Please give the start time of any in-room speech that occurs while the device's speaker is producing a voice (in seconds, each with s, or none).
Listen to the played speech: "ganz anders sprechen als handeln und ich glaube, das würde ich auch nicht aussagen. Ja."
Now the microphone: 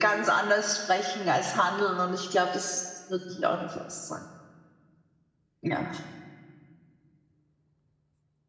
none